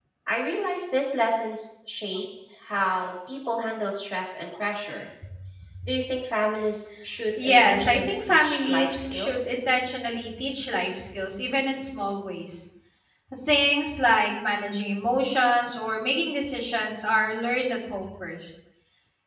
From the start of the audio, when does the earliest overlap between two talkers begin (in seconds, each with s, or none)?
7.4 s